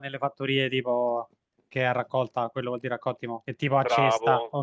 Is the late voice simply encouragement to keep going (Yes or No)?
No